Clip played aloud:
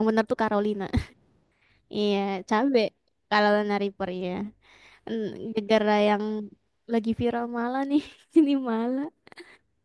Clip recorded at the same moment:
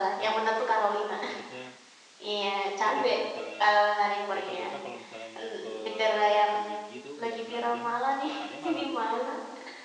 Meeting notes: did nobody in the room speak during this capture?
No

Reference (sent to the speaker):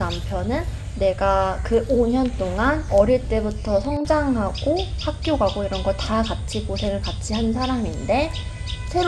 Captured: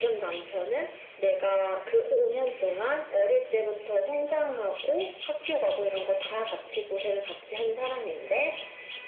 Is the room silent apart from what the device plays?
Yes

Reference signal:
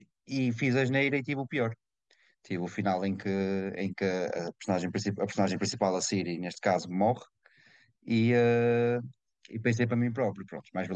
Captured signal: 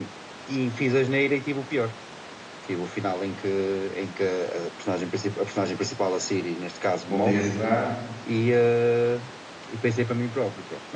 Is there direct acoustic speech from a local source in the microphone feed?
Yes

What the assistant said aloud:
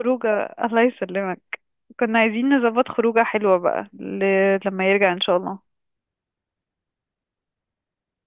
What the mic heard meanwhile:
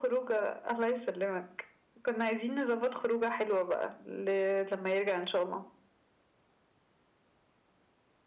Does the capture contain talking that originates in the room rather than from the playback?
No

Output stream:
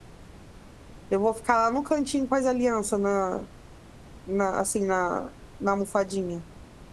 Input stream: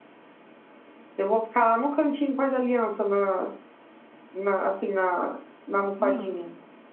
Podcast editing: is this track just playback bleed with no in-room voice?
No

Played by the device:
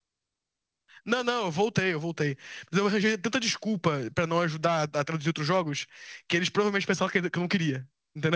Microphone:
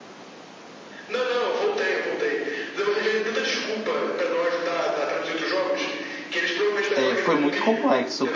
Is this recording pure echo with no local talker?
No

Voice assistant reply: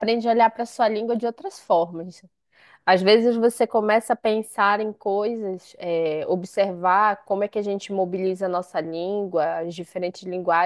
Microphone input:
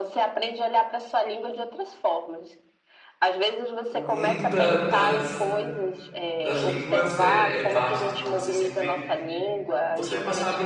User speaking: Yes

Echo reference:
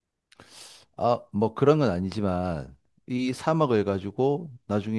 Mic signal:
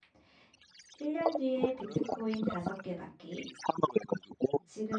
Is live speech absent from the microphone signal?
No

